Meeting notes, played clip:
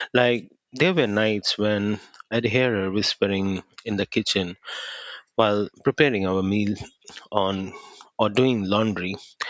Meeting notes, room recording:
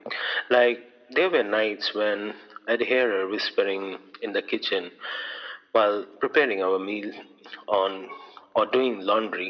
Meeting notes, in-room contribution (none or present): none